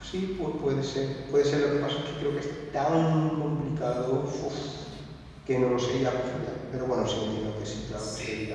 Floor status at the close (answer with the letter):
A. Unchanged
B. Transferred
B